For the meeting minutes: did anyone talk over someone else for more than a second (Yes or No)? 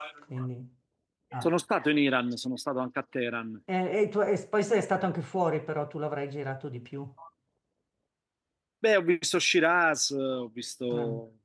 No